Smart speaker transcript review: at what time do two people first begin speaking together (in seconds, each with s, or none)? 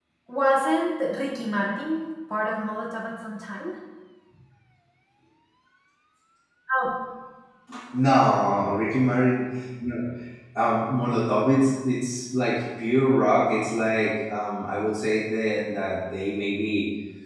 none